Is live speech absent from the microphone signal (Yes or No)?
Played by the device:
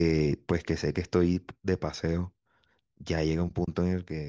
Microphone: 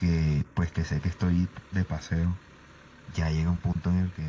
Yes